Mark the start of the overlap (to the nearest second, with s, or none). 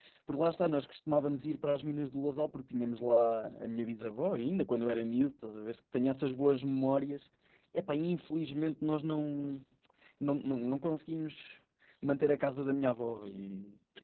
none